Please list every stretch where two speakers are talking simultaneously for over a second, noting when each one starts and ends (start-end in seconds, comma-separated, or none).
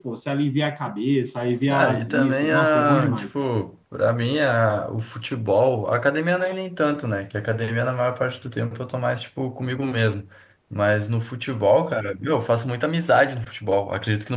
1.7-3.3